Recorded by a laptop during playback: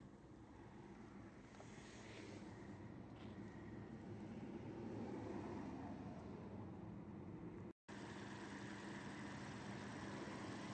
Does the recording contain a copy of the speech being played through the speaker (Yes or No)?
No